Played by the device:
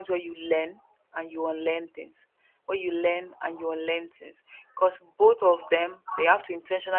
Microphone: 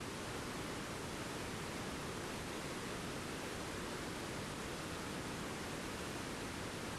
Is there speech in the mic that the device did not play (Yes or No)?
No